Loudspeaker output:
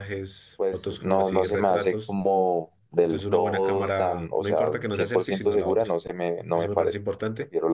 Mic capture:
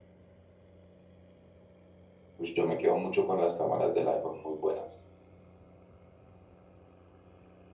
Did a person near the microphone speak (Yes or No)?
Yes